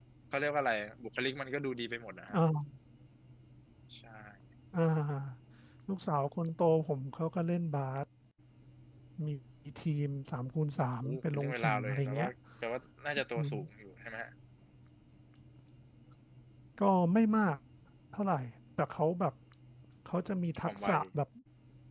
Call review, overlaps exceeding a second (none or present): present